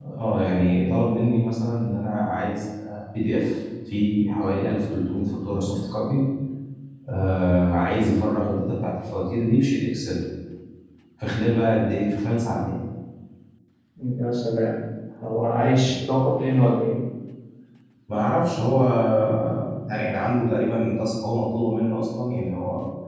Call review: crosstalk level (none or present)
none